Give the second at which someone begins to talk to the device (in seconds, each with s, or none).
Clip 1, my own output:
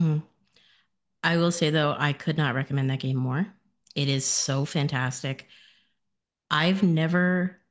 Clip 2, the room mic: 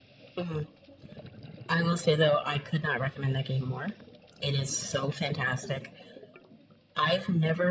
none